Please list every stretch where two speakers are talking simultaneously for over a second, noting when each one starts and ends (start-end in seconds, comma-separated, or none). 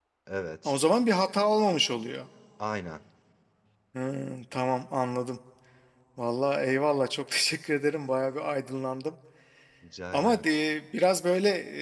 none